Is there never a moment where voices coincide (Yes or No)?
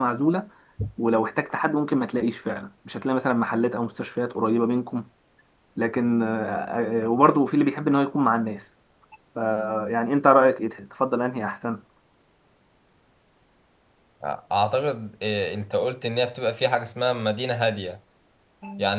Yes